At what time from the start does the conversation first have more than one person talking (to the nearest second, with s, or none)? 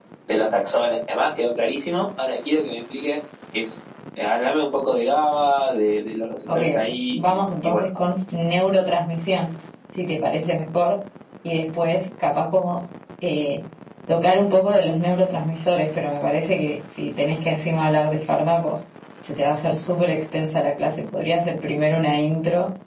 6 s